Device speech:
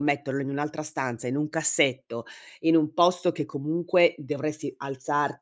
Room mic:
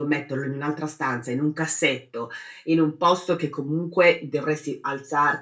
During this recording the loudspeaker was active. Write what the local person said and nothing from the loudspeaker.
none

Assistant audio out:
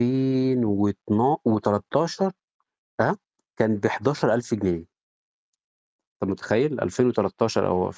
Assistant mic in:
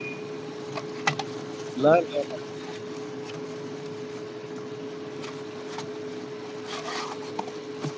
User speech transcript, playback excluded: لأ، لأ، لأ.

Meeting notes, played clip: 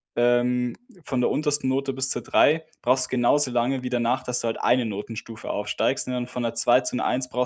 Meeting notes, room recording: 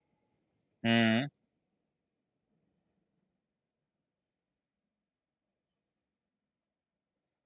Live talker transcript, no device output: Mhm.

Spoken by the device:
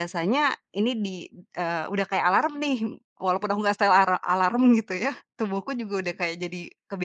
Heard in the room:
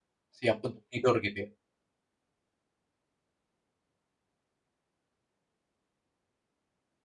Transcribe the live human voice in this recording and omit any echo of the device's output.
Siap untuk tidur gitu ya?

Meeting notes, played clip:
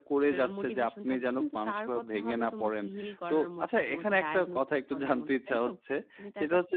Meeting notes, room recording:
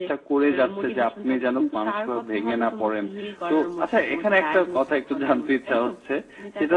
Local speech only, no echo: none

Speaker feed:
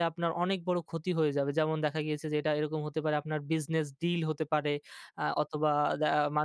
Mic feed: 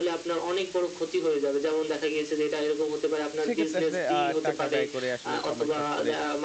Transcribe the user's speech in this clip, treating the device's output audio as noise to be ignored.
সেক্ষেত্রে আসলে আ টাকা ব্যয় করে আসলে সময় শর্ট করে

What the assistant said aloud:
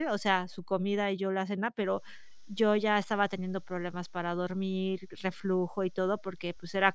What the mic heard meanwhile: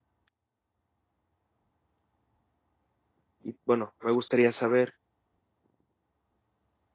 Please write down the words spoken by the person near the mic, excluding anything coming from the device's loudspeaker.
Y bueno, me gustaría saber,

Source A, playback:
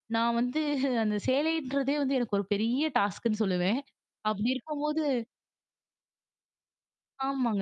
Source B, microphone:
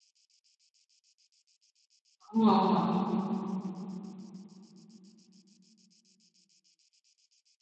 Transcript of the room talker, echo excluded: ஆமா, ஆமா.

